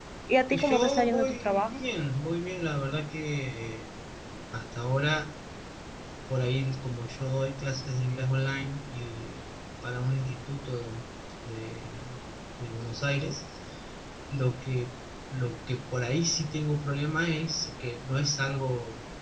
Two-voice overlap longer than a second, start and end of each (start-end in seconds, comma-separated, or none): 0.5-1.8